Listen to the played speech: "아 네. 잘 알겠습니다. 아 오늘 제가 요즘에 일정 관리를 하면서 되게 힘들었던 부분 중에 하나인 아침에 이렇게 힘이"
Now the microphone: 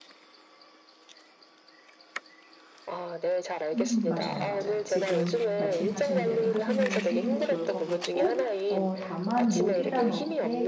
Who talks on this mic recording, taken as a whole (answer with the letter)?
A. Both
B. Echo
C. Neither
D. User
A